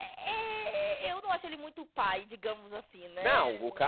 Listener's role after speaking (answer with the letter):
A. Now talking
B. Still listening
A